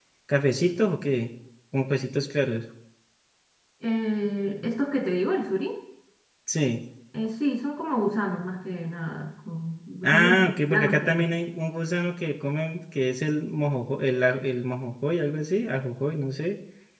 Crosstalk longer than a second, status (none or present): present